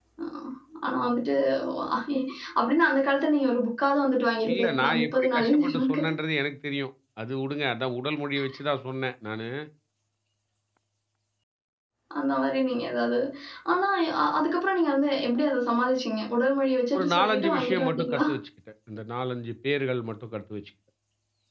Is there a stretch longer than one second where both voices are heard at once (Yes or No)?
Yes